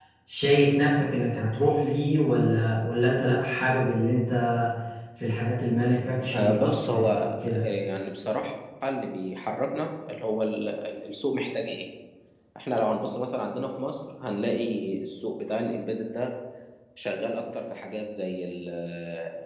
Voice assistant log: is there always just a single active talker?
No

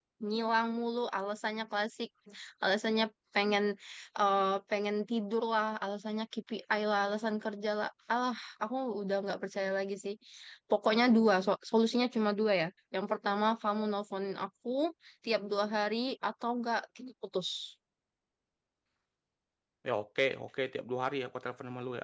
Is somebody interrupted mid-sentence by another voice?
No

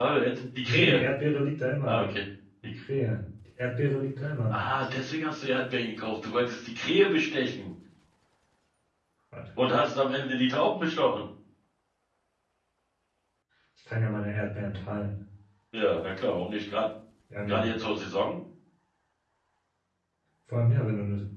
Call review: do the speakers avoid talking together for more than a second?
Yes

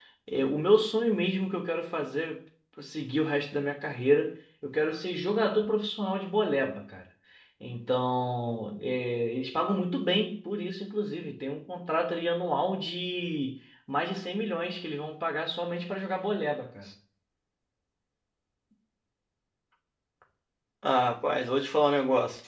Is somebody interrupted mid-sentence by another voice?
No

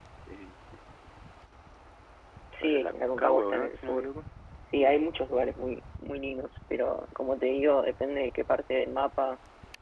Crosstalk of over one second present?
Yes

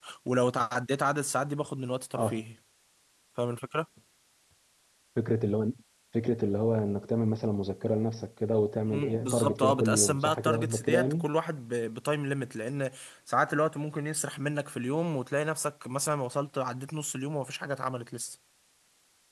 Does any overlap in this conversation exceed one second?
Yes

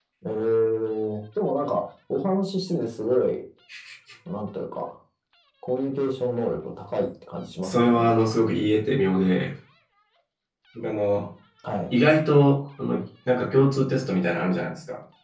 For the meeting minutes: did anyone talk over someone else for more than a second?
No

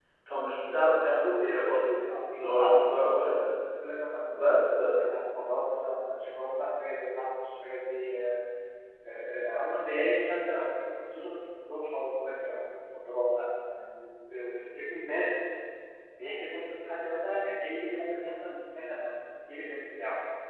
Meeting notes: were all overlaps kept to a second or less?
No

